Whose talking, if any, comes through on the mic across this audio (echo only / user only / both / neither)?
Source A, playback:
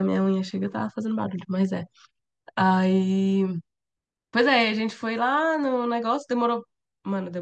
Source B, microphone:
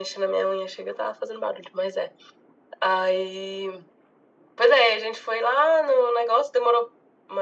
echo only